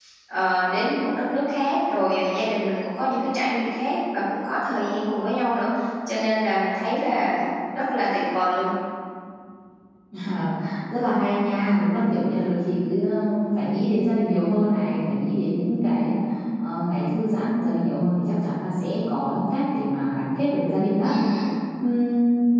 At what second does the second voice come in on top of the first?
none

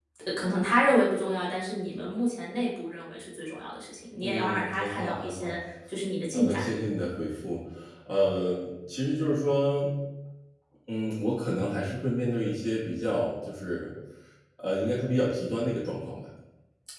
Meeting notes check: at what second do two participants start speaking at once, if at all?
4 s

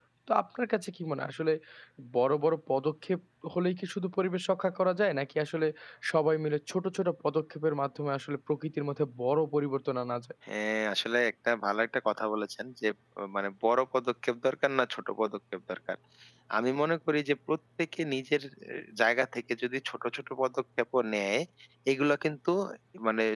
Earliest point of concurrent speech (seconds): none

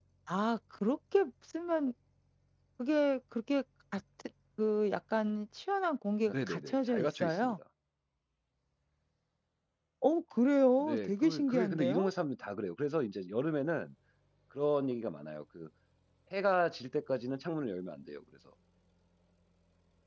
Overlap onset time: 6 s

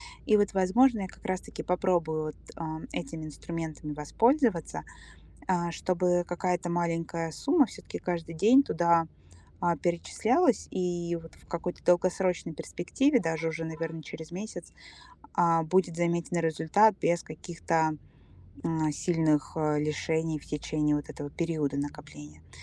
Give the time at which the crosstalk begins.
none

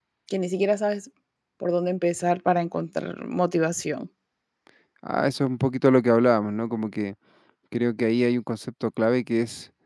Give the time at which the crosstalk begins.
none

